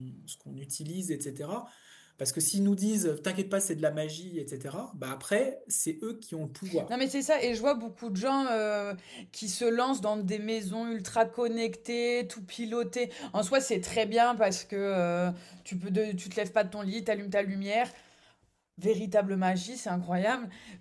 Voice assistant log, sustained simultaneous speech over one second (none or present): none